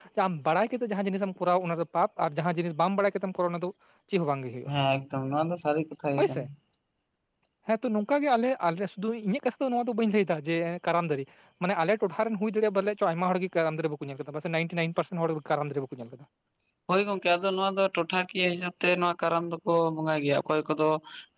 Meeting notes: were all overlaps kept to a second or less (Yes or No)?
Yes